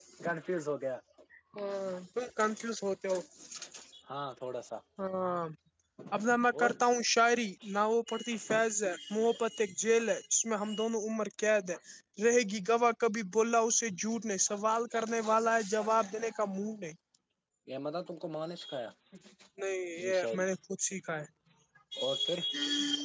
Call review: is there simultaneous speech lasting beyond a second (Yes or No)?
No